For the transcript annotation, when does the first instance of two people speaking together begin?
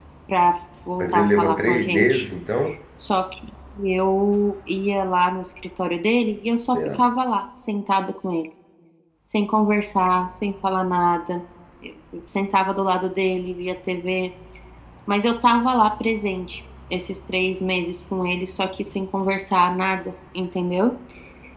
1.0 s

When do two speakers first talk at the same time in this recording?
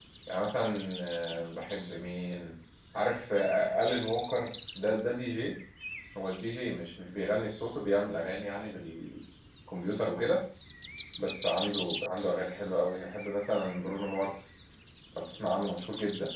none

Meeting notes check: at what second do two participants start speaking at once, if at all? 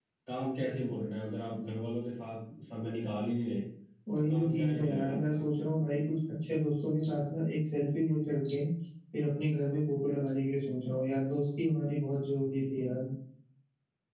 4.2 s

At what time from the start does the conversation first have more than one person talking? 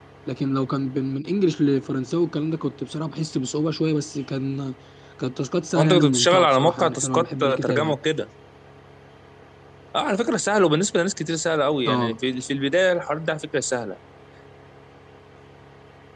5.8 s

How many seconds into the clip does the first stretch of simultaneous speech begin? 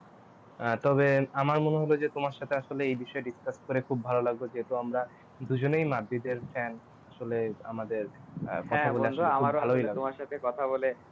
8.7 s

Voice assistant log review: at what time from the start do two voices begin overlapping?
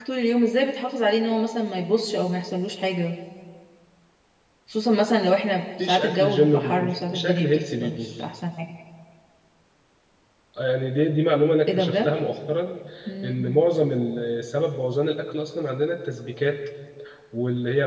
5.8 s

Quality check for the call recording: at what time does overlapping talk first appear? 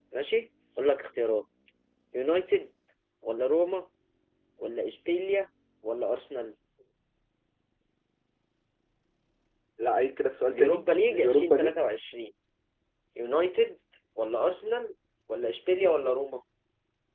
10.5 s

